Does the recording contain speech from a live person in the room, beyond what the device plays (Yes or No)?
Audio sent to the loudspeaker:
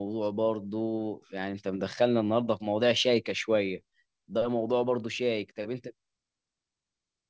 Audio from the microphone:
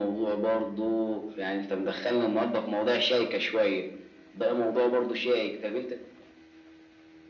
No